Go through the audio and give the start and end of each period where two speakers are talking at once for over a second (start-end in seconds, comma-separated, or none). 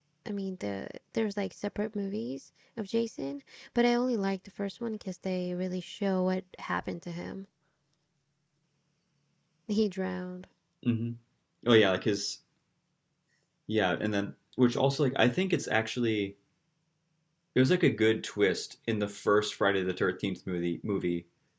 none